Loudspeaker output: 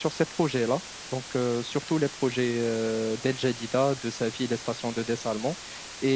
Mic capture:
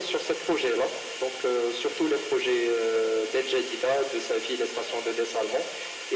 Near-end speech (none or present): none